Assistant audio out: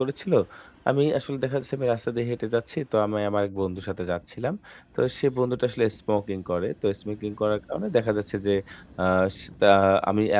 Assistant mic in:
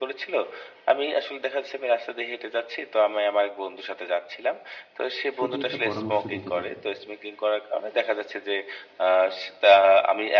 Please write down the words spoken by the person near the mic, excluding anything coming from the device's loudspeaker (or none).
সঠিক একটা পরামর্শ দিতে পারবে।